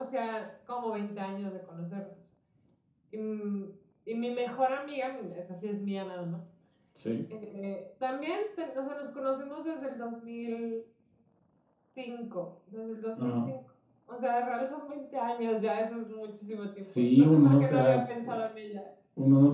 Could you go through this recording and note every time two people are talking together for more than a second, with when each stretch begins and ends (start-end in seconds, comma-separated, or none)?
17.0-18.4